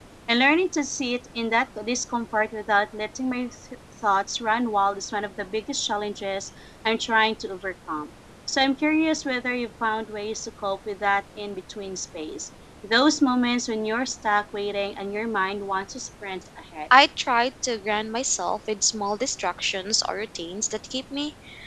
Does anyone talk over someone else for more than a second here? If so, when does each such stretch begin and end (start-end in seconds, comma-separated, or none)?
none